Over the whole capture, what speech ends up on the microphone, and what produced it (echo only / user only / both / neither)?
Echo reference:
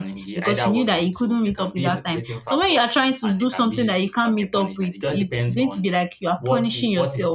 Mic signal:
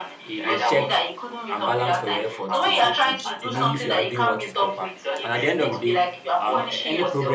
both